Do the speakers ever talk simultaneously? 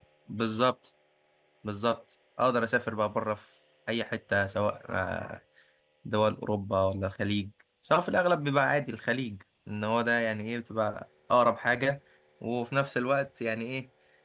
No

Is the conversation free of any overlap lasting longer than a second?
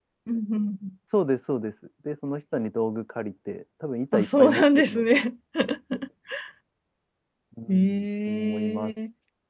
No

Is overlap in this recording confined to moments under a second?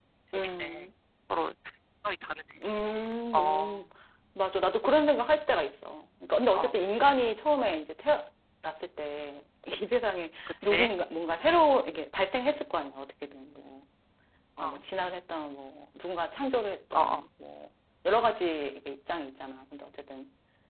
Yes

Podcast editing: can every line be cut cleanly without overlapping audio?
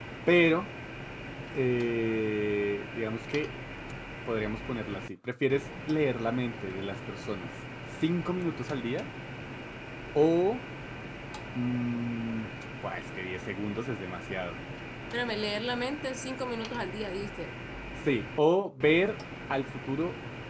Yes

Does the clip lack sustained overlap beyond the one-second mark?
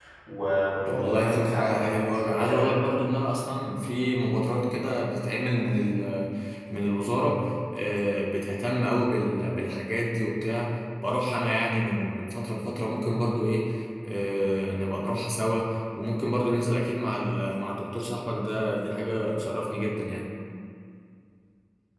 No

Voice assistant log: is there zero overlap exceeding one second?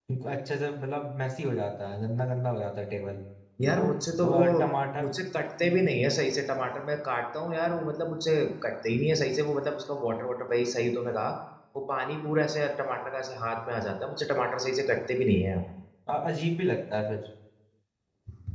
Yes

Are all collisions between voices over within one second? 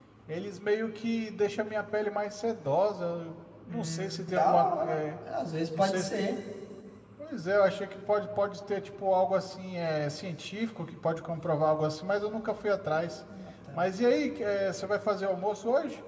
No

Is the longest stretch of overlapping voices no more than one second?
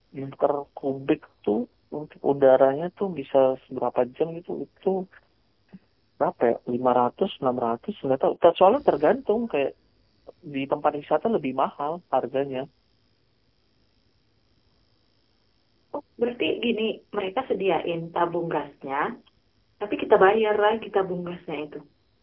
Yes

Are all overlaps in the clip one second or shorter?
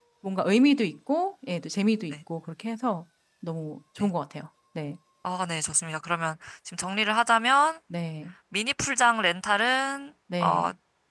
Yes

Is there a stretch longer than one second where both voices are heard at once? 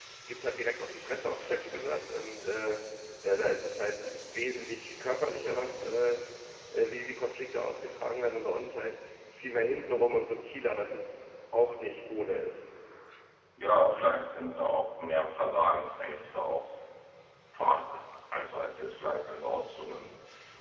No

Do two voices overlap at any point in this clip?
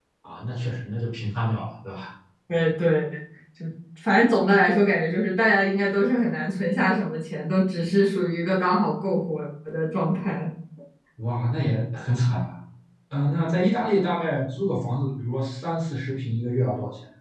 No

